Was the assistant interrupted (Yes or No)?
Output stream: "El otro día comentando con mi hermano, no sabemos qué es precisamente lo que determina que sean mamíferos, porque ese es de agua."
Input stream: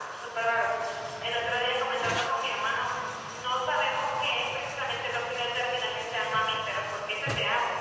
No